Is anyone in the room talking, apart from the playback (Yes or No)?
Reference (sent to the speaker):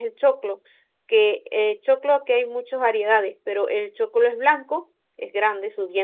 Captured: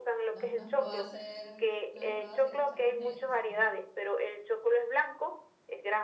Yes